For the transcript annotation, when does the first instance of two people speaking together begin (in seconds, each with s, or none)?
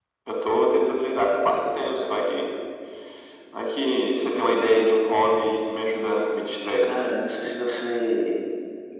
none